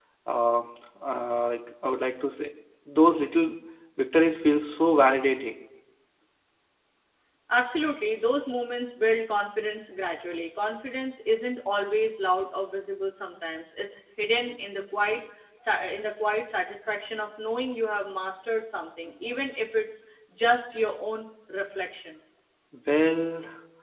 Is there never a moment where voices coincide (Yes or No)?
Yes